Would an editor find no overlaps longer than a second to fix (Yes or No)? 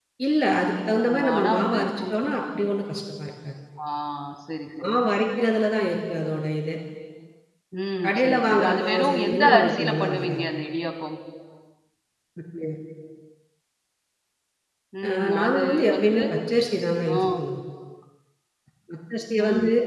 No